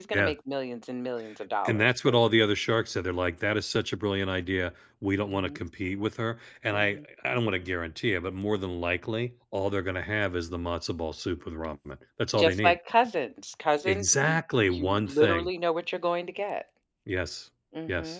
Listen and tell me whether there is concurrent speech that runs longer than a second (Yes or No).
Yes